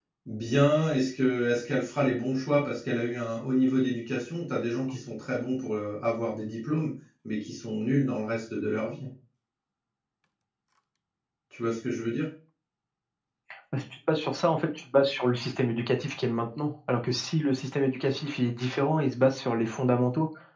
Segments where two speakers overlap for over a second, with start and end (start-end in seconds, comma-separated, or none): none